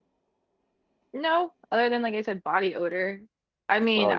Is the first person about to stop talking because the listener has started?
No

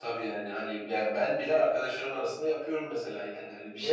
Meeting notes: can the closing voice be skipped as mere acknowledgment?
Yes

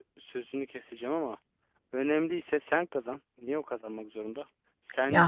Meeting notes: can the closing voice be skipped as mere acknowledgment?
Yes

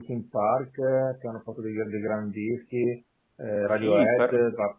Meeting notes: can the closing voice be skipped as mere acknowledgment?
No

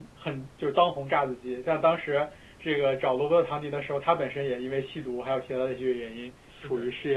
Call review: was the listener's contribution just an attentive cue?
Yes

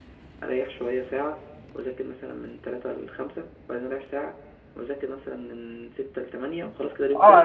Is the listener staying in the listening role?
No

